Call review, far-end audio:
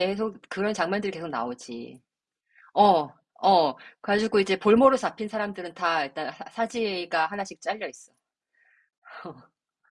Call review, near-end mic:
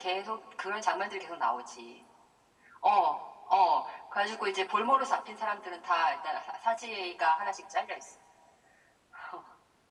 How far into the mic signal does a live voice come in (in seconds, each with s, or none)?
none